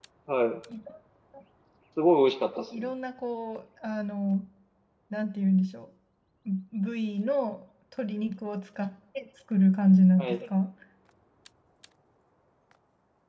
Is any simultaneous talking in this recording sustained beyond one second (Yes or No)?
No